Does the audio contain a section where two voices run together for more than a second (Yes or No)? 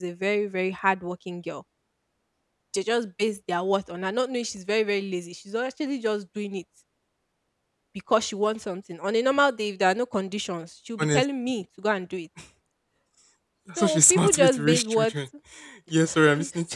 Yes